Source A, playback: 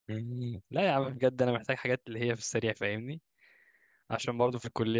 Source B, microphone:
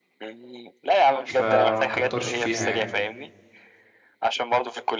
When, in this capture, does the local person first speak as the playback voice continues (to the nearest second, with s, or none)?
1 s